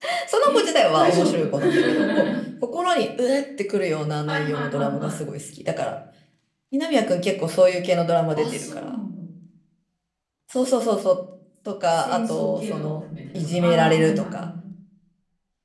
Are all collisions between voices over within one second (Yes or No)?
No